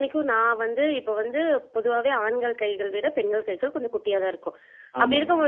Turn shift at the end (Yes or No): No